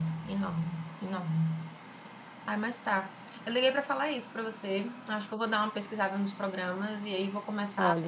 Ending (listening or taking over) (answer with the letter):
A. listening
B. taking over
B